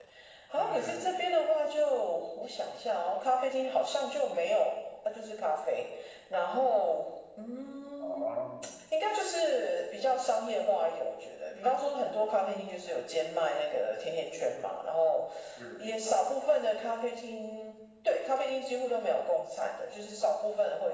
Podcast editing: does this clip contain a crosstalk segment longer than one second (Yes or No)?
No